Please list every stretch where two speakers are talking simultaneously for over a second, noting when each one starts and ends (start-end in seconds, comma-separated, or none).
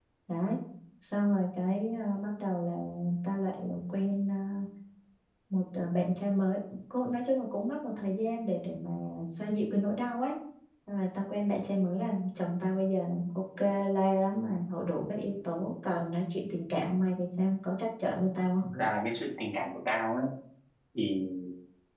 none